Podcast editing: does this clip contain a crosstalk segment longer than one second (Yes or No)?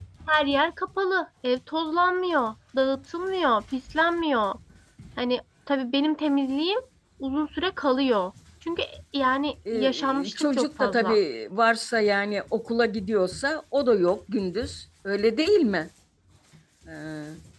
Yes